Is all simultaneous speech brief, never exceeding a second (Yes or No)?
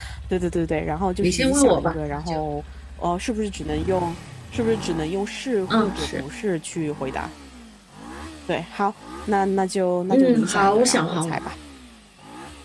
No